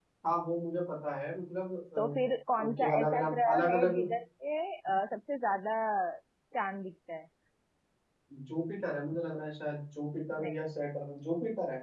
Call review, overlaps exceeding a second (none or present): present